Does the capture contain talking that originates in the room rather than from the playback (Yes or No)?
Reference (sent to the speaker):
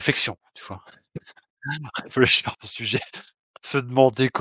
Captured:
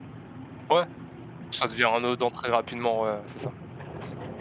Yes